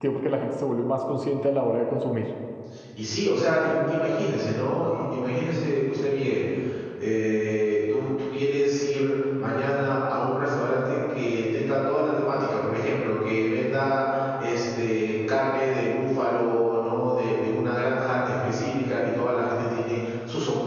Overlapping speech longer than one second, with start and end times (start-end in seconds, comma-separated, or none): none